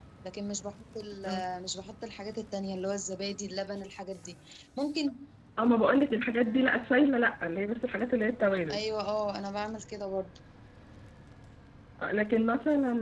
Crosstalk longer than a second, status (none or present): none